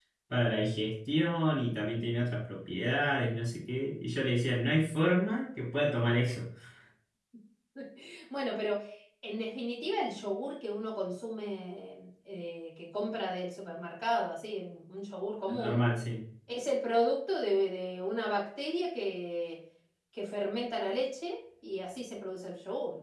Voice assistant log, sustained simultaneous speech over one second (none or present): none